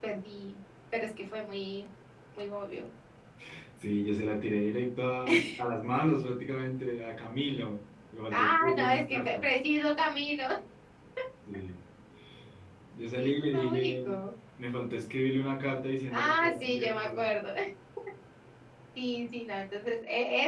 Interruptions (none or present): present